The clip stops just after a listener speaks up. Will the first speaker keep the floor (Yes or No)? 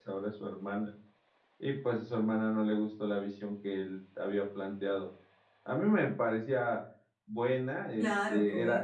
Yes